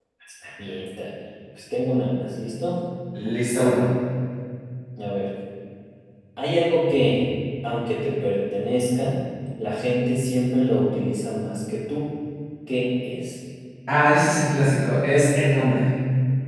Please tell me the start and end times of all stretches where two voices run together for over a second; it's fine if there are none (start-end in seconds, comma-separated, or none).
none